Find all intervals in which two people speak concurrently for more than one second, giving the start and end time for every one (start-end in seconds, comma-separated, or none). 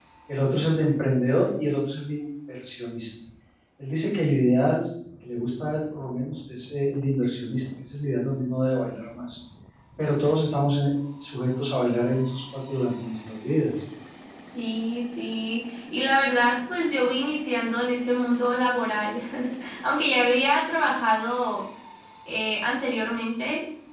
none